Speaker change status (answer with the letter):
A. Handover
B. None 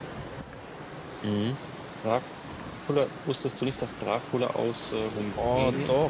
A